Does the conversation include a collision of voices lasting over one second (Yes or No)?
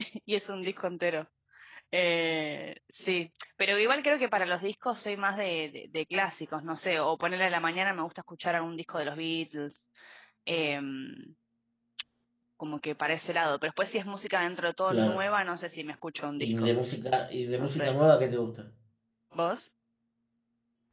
No